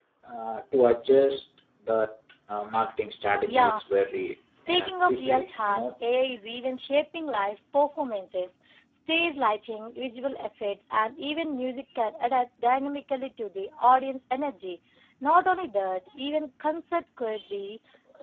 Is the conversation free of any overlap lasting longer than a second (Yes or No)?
No